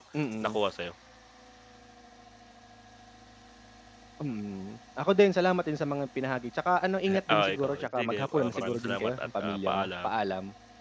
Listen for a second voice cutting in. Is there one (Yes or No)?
Yes